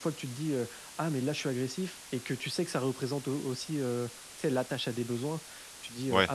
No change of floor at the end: Yes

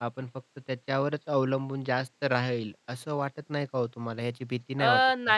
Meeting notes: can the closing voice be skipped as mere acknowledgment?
No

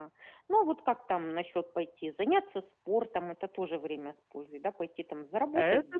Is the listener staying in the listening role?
No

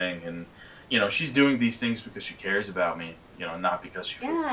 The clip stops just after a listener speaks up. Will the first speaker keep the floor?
No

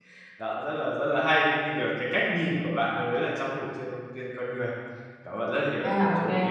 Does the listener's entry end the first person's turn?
Yes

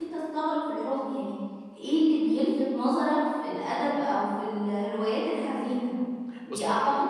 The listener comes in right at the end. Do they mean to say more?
No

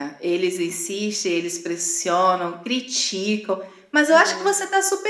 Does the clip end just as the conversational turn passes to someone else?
No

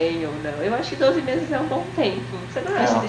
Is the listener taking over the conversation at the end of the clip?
No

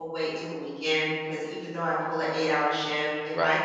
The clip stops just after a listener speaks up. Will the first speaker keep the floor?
Yes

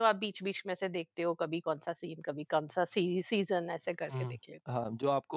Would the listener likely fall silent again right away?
No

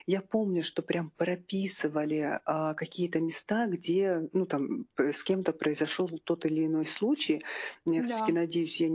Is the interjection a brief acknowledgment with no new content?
Yes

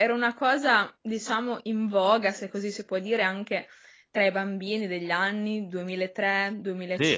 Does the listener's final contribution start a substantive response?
Yes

